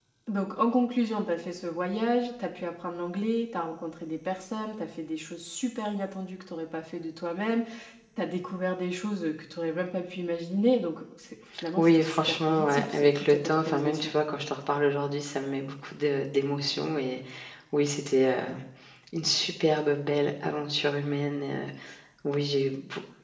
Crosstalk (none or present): present